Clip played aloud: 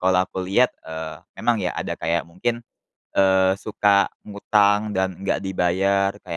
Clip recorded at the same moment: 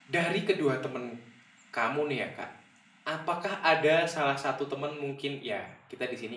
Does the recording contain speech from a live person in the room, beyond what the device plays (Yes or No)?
Yes